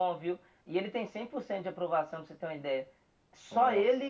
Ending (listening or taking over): listening